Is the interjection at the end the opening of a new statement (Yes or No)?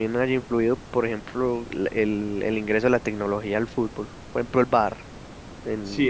Yes